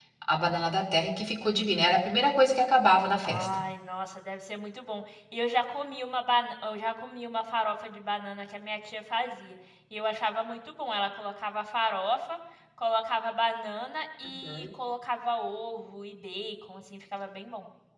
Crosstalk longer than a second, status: none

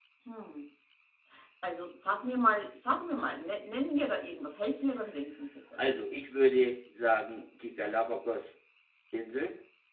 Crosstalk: none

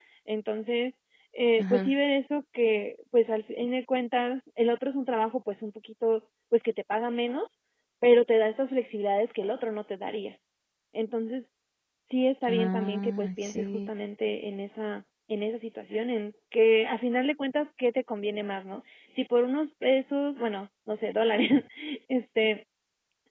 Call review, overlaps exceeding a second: present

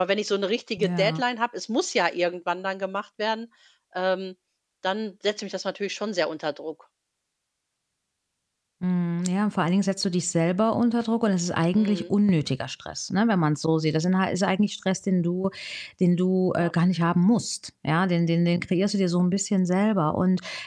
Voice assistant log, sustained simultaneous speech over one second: none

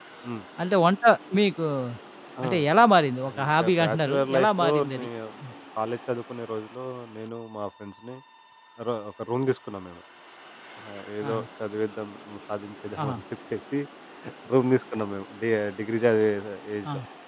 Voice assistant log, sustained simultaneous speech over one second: present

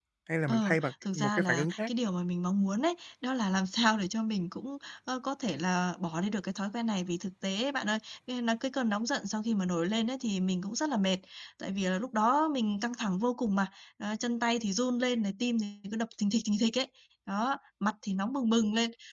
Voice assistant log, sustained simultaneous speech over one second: present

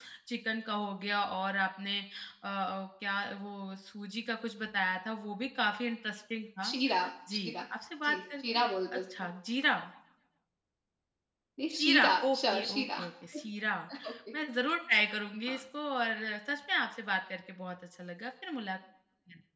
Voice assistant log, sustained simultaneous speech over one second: present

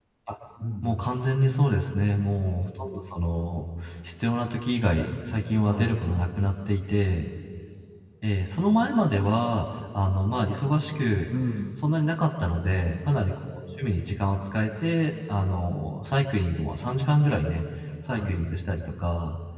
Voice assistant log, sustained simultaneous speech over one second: none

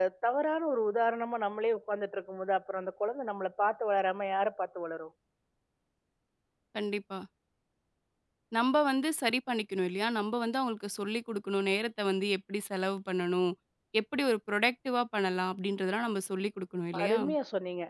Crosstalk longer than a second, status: none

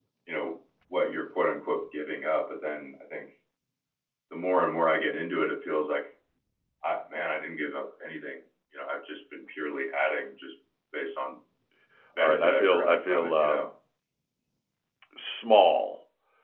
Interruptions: present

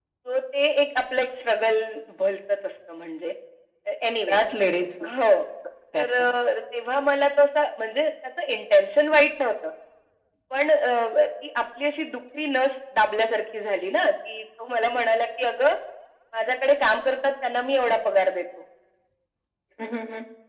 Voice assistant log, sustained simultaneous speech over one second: none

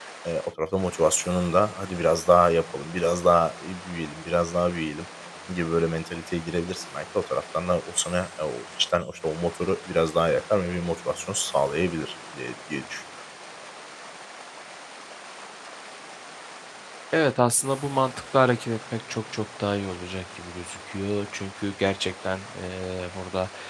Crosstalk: none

